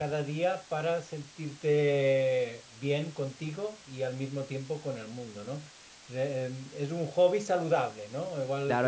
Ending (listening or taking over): taking over